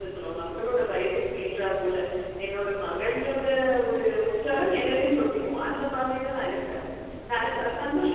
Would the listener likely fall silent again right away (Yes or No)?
Yes